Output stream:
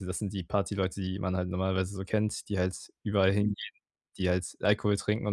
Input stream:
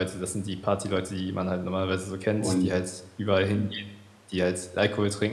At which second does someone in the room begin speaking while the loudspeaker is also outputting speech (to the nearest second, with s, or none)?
2 s